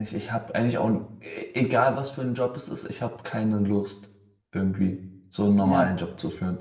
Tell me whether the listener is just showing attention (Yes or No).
Yes